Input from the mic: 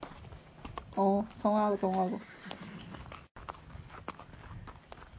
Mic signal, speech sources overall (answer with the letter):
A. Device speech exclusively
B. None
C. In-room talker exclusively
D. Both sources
C